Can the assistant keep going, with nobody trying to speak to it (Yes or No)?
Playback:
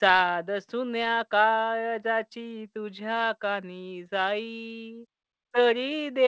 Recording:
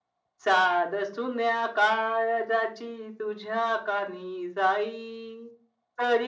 Yes